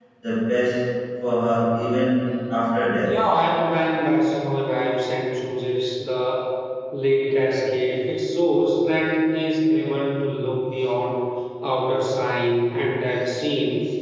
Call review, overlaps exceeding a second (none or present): none